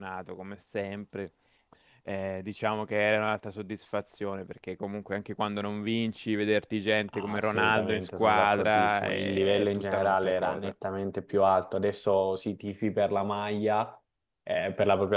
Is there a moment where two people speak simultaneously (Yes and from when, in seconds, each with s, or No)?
Yes, from 7.1 s